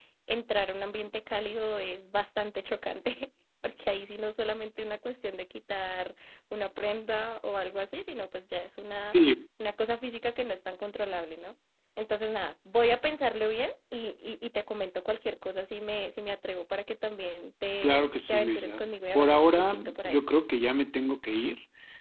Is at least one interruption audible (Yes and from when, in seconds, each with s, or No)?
Yes, from 17.8 s